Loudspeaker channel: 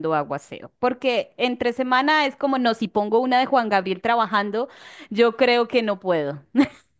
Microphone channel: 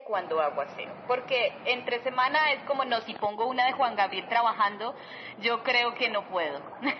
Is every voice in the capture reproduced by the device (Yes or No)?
Yes